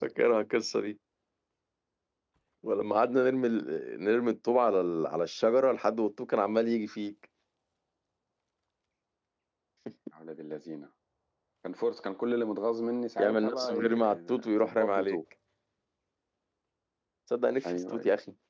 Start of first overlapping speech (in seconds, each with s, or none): 13.2 s